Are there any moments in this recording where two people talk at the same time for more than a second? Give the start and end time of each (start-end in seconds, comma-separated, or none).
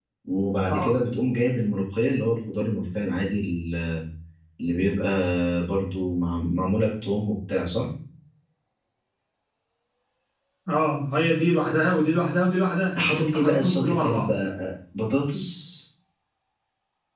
13.0-14.3